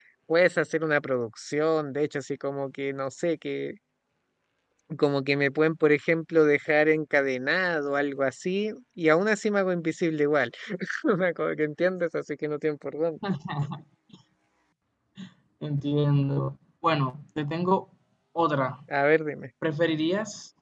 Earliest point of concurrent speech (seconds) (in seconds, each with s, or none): none